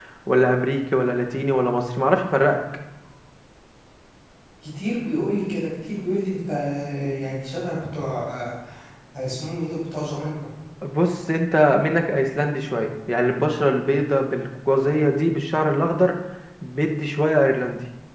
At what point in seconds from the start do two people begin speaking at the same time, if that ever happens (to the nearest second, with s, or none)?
none